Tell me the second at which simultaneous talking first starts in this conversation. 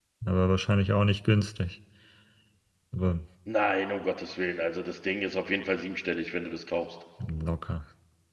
none

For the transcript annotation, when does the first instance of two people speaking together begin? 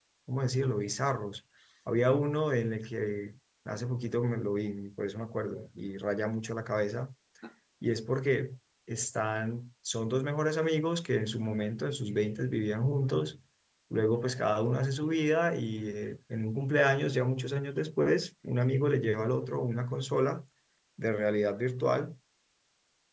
none

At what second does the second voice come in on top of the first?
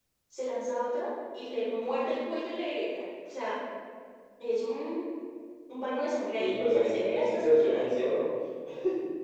6 s

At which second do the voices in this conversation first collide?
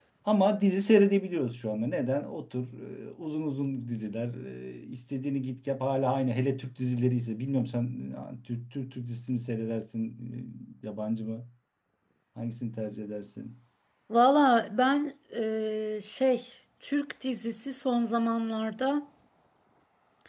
none

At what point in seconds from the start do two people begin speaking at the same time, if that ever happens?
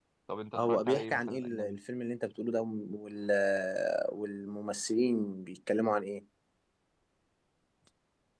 1 s

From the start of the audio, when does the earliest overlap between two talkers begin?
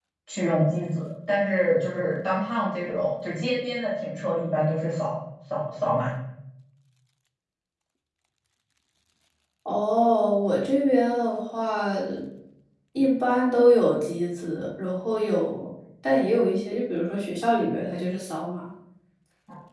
none

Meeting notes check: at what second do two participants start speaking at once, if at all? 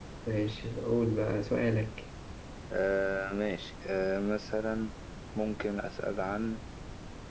none

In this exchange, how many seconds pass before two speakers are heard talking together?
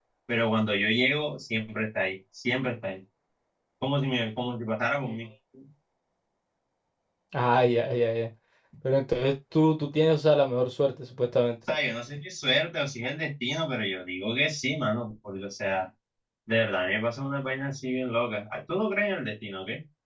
none

